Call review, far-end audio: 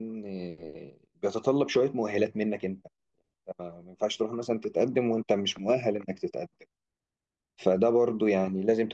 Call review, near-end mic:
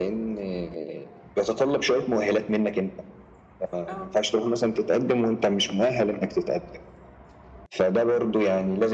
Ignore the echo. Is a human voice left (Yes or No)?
Yes